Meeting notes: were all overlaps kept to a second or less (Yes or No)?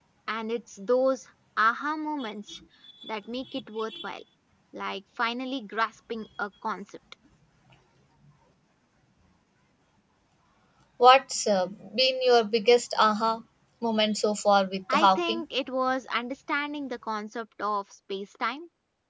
Yes